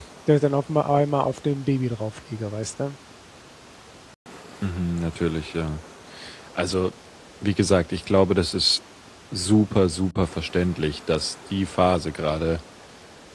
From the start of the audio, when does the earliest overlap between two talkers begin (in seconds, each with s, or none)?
none